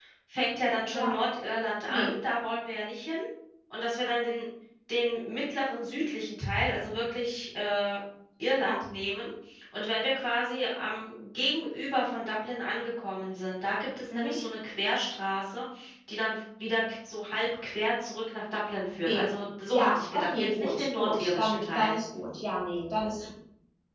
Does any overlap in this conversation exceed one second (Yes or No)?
Yes